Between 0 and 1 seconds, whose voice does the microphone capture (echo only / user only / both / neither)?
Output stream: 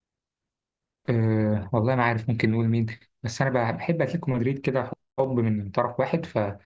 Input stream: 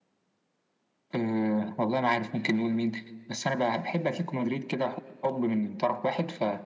neither